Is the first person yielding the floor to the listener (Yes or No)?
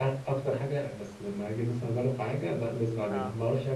No